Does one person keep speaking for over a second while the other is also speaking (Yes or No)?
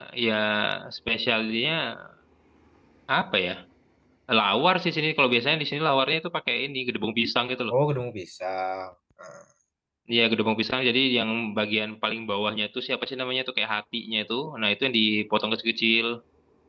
No